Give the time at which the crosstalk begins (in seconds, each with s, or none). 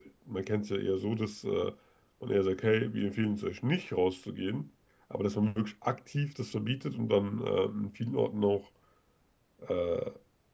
none